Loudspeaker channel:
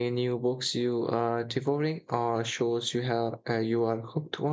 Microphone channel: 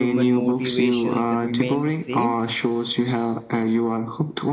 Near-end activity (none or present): present